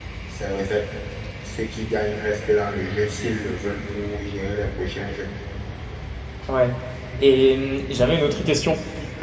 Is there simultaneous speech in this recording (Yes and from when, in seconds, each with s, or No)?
No